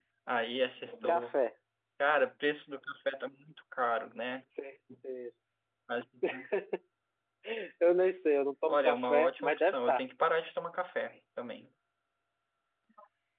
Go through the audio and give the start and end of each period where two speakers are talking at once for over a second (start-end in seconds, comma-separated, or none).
8.7-10.0